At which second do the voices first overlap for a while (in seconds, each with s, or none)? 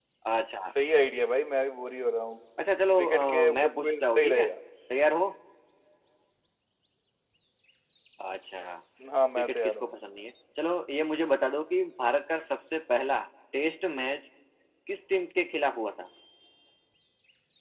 3.0 s